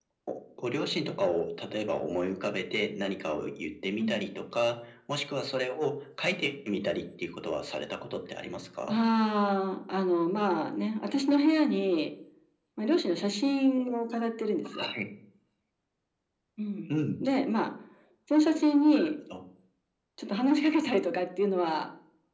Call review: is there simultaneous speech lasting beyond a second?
No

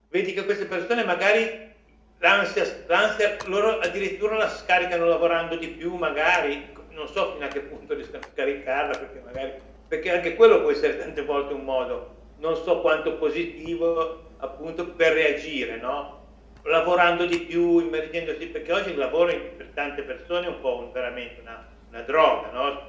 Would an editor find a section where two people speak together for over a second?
No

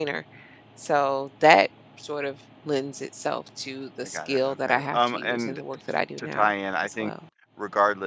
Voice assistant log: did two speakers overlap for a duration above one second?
Yes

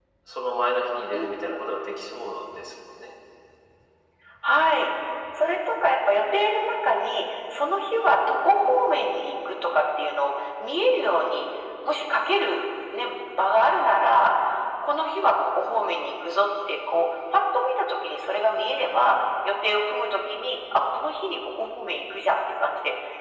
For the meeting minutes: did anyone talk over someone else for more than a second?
No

